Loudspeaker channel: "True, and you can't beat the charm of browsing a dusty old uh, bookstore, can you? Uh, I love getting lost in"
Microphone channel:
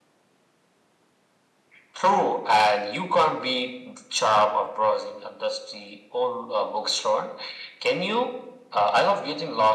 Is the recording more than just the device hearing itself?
No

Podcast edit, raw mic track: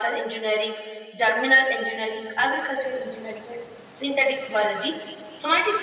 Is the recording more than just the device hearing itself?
No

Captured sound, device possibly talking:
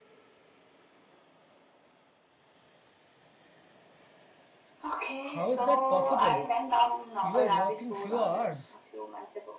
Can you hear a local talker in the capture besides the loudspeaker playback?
Yes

